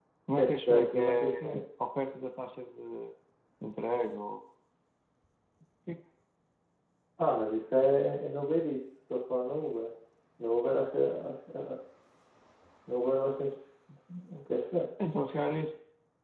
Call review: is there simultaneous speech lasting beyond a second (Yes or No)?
Yes